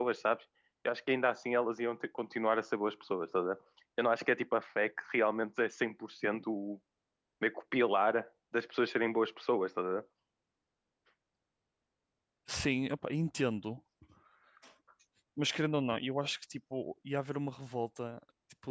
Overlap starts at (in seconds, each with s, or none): none